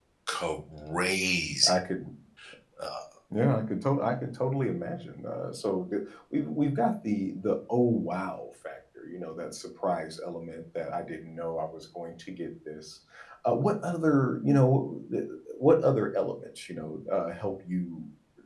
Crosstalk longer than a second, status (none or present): none